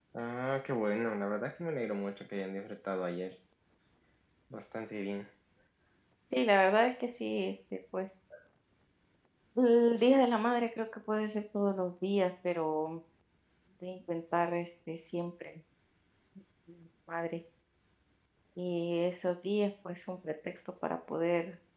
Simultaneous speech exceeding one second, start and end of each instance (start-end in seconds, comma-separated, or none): none